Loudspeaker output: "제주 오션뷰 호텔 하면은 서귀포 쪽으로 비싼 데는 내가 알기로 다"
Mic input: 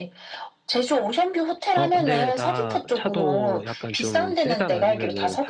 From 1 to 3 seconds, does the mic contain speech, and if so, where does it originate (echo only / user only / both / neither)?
both